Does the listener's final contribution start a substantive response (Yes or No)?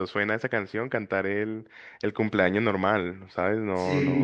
No